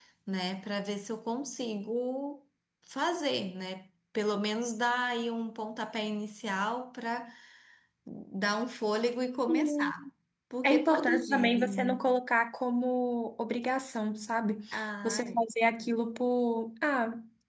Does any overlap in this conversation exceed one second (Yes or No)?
Yes